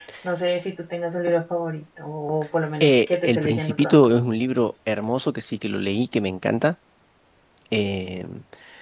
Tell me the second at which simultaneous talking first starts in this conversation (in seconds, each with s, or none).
2.8 s